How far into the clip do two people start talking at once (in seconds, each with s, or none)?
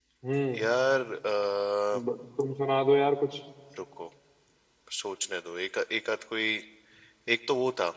none